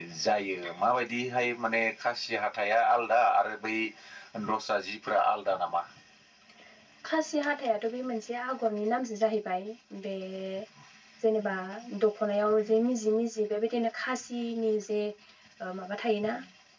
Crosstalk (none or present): none